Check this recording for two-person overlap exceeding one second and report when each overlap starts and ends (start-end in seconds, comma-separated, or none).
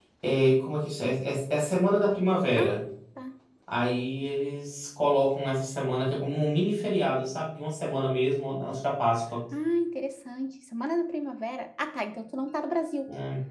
none